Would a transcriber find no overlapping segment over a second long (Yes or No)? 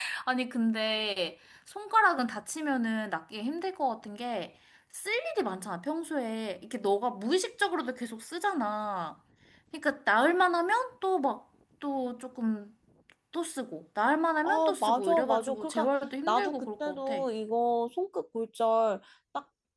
No